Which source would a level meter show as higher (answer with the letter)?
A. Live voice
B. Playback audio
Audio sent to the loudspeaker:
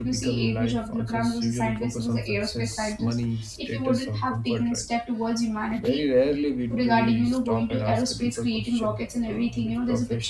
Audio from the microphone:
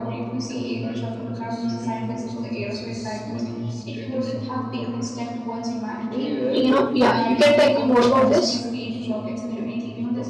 A